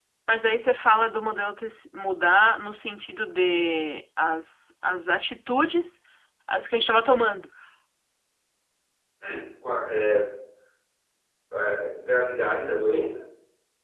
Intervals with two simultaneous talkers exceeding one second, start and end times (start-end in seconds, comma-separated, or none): none